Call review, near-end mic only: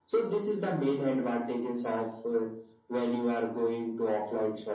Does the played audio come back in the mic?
Yes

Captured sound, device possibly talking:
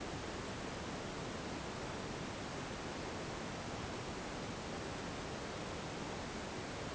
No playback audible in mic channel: Yes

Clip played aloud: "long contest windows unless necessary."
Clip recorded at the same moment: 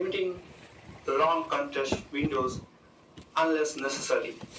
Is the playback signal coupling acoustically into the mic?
Yes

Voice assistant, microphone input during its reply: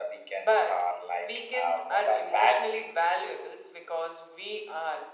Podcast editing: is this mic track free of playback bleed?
No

